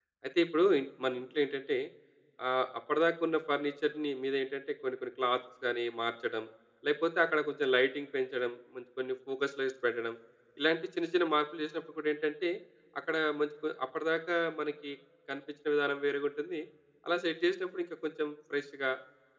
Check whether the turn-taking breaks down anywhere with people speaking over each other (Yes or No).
No